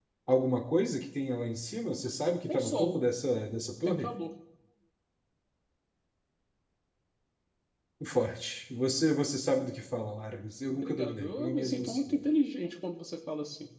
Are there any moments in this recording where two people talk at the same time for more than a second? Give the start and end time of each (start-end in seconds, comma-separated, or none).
10.7-12.2